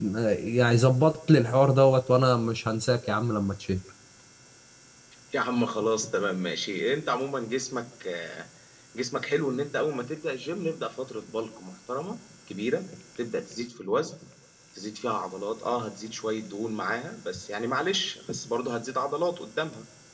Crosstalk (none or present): none